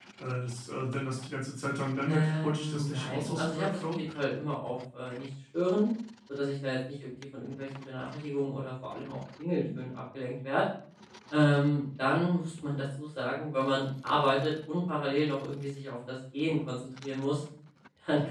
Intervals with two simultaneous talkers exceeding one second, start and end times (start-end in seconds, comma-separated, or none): 2.1-4.0